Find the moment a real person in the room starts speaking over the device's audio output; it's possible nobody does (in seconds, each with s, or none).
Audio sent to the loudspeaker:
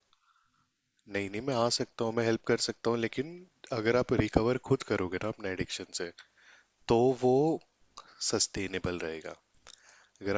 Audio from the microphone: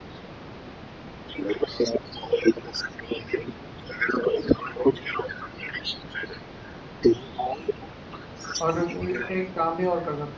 8.6 s